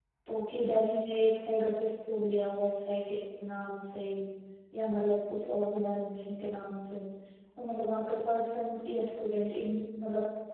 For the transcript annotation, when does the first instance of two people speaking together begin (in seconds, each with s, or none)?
none